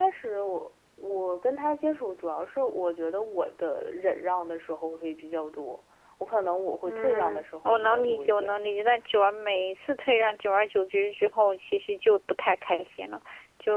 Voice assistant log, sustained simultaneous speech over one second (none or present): present